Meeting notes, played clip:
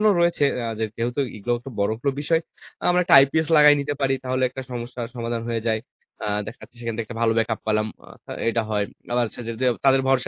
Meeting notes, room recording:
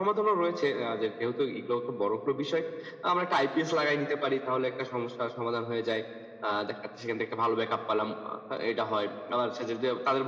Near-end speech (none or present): none